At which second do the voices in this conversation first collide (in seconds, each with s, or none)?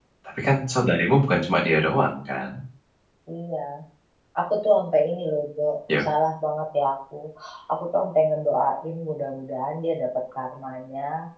none